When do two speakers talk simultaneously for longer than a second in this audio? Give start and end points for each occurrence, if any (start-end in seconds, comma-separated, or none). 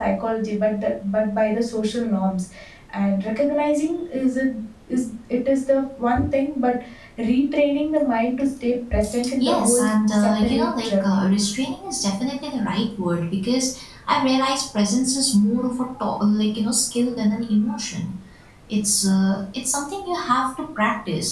9.4-11.3